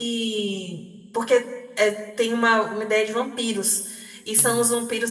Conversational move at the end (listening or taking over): listening